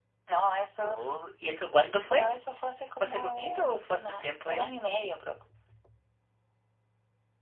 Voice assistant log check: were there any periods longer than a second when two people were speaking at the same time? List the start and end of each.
3.0-4.7

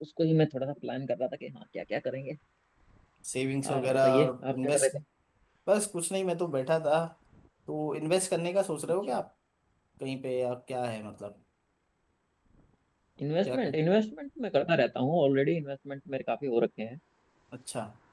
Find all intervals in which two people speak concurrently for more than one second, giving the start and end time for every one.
3.7-4.9

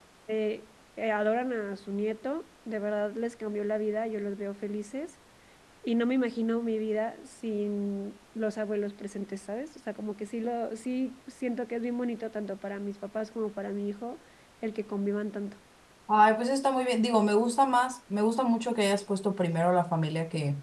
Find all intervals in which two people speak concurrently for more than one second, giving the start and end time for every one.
none

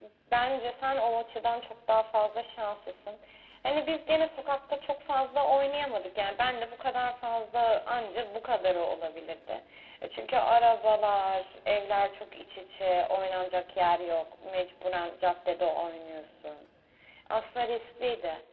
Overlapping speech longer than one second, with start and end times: none

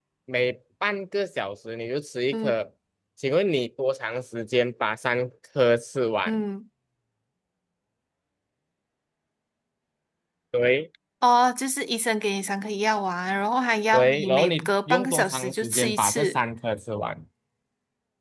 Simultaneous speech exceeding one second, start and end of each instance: 13.9-16.4

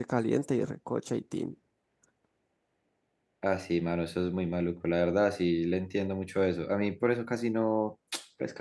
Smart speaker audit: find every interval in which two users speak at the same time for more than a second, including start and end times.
none

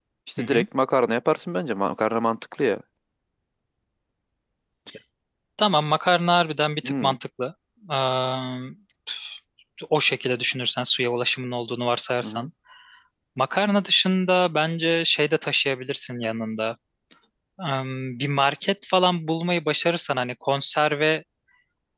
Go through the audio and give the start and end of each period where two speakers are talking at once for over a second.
none

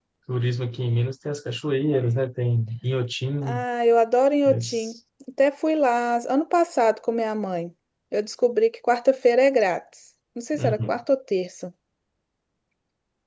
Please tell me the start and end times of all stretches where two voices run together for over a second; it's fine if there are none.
none

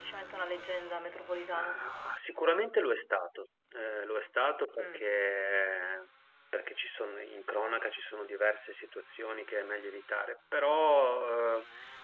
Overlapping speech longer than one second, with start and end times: none

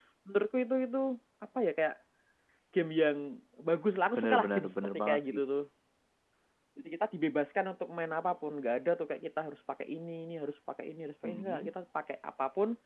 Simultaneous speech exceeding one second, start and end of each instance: 4.2-5.4

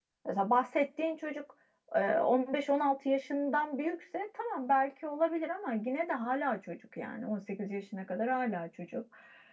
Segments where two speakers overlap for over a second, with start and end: none

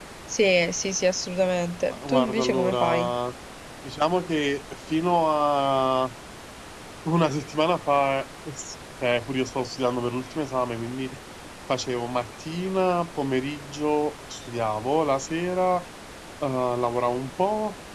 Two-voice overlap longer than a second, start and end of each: 1.9-3.1

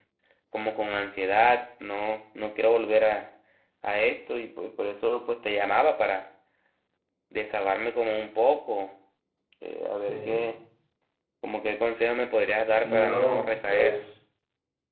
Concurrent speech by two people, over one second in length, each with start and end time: 12.8-14.0

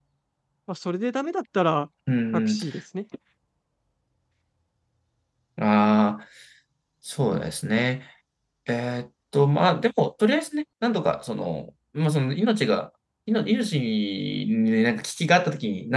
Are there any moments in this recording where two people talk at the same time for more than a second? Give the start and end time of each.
none

